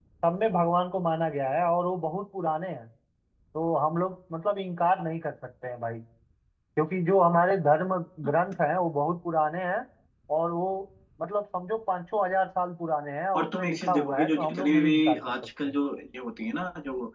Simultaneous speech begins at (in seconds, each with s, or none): 13.3 s